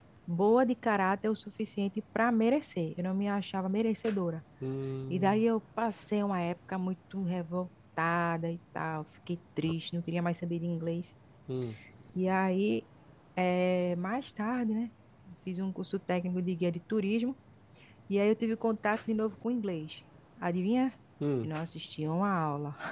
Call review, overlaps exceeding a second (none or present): none